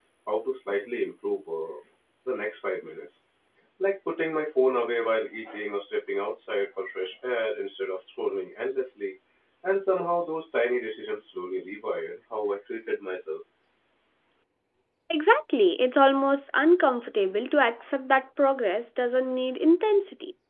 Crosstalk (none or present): none